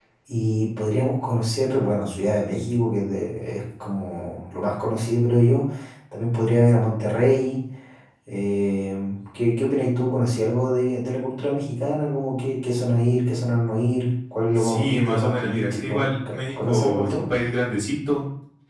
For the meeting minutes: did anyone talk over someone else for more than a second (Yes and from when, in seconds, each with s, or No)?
Yes, from 14.6 s